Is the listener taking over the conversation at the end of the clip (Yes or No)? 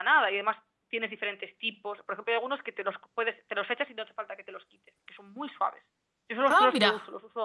No